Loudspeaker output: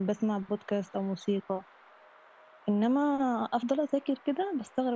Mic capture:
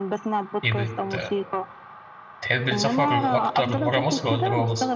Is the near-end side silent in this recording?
No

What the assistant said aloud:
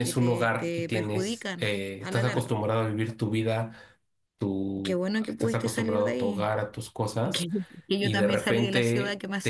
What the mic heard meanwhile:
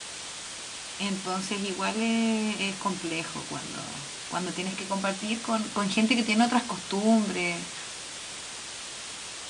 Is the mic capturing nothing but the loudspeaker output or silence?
No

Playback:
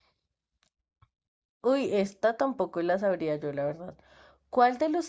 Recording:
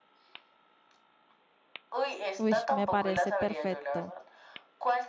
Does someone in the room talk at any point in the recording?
Yes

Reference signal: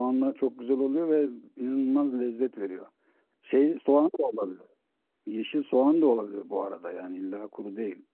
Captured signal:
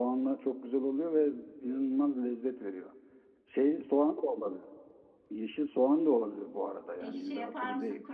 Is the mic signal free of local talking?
No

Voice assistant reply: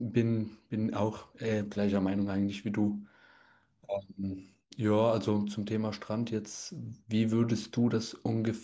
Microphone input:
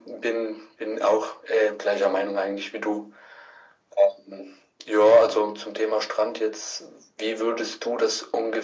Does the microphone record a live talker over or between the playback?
No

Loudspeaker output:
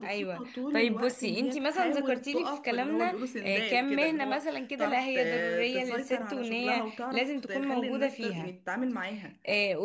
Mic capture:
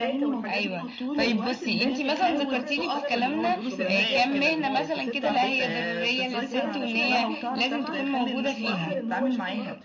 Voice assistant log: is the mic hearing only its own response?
No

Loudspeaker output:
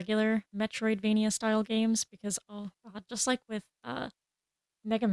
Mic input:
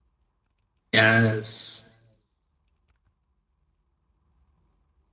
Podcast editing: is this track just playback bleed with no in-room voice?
No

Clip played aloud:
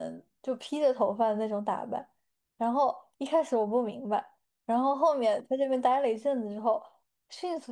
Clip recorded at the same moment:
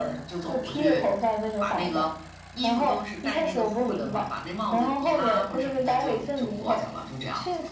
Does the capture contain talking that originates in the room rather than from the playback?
Yes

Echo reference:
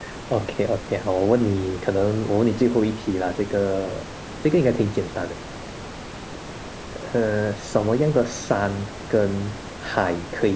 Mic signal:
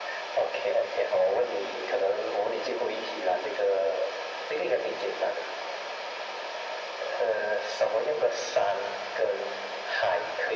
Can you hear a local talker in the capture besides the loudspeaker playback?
No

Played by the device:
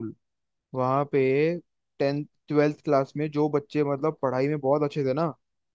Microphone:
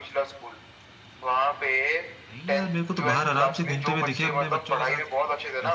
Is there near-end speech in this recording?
Yes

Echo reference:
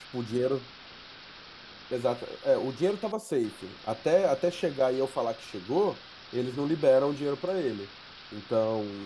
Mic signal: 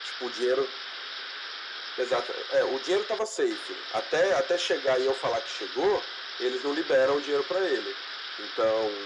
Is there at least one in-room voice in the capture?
No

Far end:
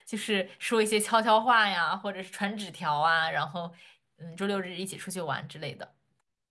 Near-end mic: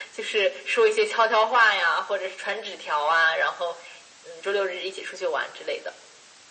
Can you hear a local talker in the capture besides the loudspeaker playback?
No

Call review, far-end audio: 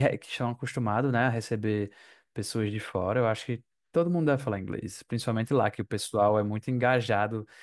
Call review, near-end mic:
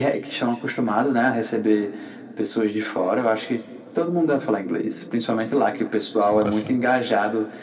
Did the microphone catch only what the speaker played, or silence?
No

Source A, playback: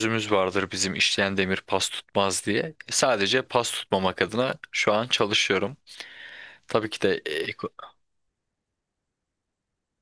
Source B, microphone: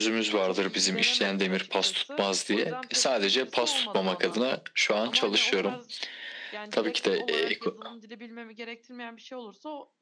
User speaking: Yes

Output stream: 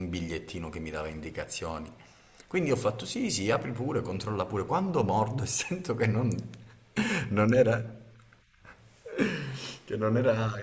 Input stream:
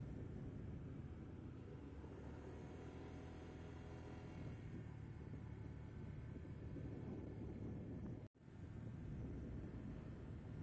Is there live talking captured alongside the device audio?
No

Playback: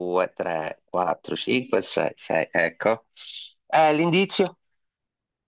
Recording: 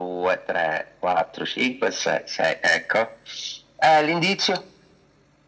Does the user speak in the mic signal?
No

